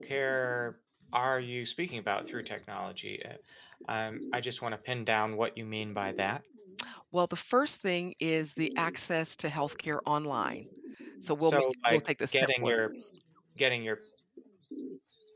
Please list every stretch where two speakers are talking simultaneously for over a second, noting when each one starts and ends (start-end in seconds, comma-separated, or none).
11.4-12.8